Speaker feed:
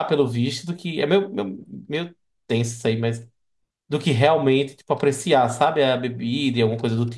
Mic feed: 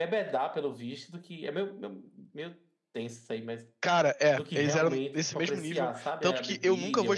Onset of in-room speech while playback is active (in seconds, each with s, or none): 3.8 s